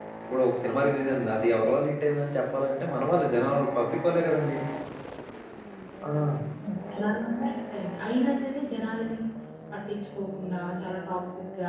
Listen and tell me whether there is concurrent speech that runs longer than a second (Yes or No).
No